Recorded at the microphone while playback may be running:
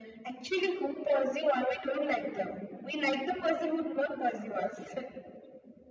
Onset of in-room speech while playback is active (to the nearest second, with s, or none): none